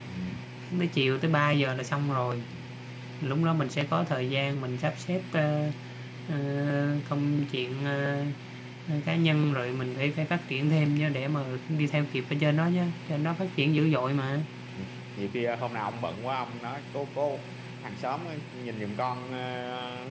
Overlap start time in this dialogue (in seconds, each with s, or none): none